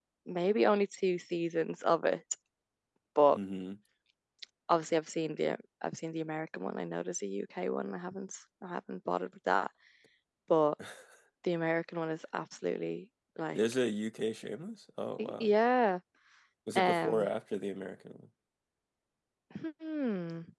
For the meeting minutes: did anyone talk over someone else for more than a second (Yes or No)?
No